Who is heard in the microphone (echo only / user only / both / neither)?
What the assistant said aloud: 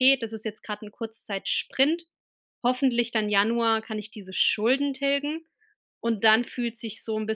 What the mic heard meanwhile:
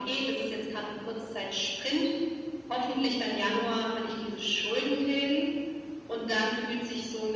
echo only